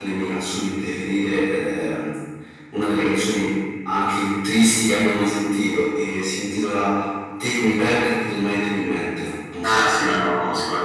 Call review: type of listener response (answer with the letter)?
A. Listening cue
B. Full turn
B